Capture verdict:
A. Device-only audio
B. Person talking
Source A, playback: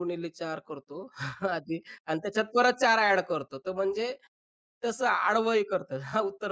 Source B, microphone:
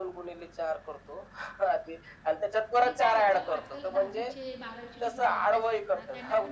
B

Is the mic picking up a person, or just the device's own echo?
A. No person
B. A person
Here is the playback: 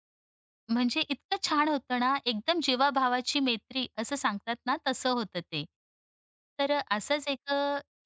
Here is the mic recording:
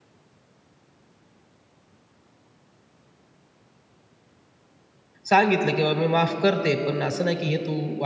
B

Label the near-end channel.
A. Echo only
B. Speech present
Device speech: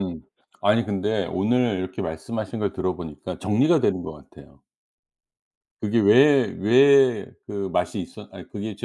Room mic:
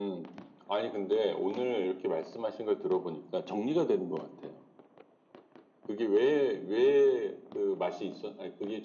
A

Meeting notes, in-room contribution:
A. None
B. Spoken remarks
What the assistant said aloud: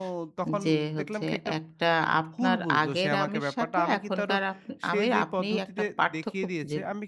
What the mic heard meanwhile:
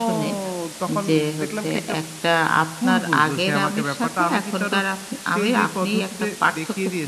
A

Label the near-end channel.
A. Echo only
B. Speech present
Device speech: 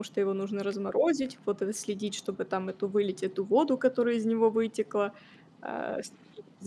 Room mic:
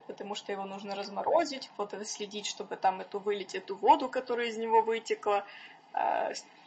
A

